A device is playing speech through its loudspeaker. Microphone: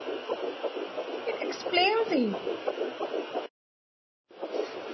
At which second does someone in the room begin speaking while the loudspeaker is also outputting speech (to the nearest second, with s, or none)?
1 s